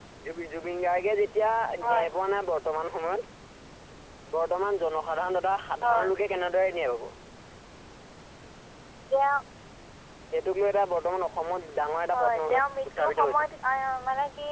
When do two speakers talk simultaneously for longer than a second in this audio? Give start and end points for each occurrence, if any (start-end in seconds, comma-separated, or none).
12.1-13.4